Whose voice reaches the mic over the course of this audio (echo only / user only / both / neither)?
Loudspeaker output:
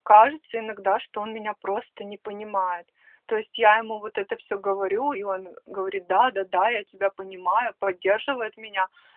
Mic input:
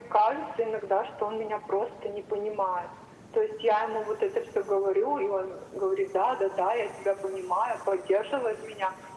echo only